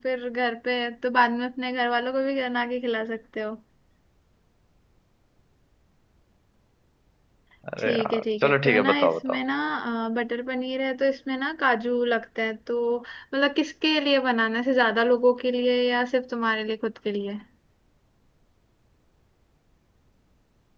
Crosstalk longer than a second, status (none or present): present